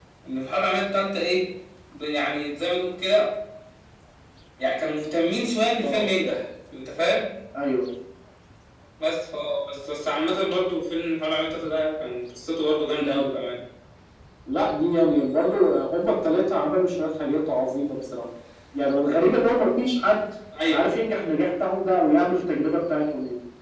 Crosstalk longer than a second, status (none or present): none